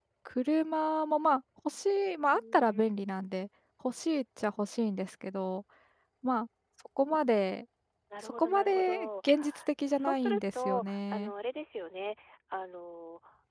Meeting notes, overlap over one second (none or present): present